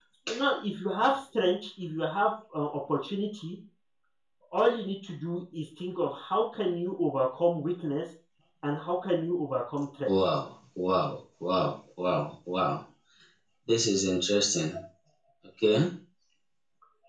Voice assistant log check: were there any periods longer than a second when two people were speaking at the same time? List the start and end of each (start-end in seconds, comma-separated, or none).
none